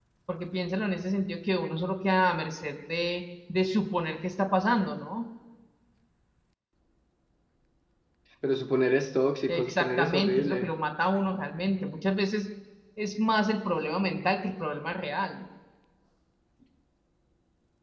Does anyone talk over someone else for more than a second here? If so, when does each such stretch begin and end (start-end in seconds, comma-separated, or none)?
9.5-10.7